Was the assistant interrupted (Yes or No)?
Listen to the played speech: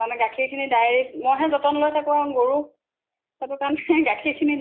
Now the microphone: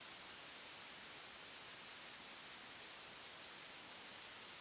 No